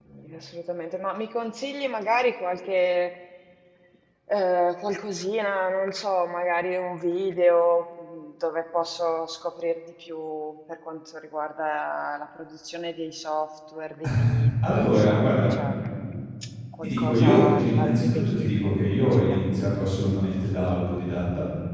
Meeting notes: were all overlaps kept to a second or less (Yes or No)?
No